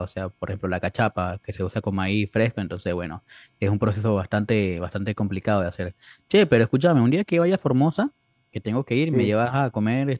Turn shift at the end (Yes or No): No